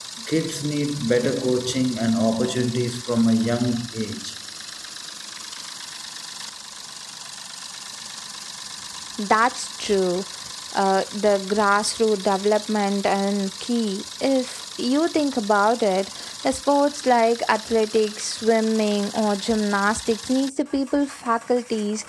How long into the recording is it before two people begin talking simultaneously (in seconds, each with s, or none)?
none